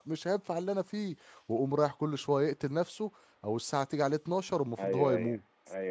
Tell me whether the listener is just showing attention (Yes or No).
No